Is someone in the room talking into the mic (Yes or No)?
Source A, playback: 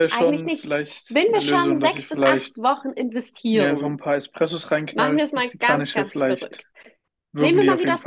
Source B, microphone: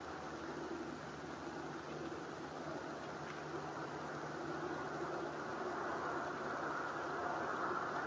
No